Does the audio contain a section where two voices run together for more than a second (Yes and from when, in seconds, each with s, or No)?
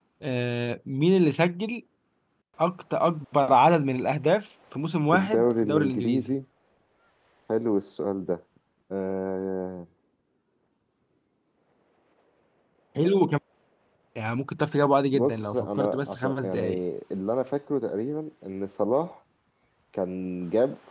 Yes, from 5.1 s